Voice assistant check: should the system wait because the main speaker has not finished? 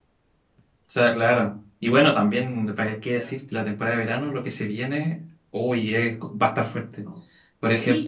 No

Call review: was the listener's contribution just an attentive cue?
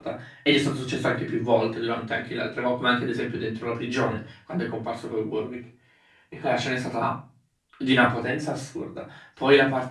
Yes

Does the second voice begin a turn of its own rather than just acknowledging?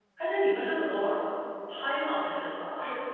Yes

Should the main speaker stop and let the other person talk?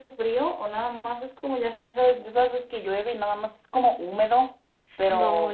Yes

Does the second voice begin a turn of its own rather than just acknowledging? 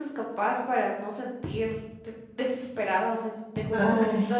No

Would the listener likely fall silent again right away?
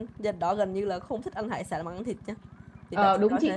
No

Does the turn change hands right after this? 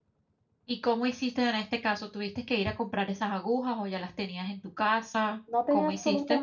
Yes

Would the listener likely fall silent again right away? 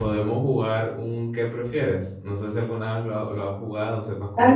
No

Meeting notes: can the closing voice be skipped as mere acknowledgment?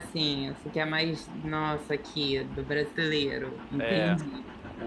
No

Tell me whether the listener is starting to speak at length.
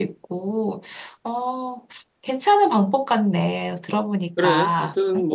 Yes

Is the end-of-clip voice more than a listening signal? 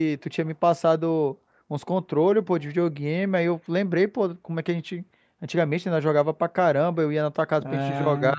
No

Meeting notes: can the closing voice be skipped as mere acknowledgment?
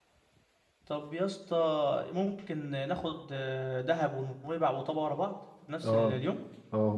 No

